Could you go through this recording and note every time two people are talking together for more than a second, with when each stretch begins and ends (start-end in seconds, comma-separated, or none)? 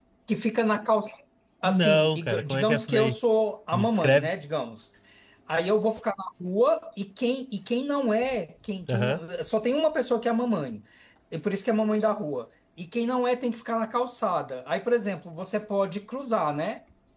1.6-3.1